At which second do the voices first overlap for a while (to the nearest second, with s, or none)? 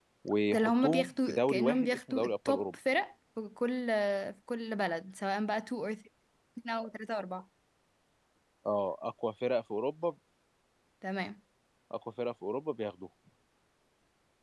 1 s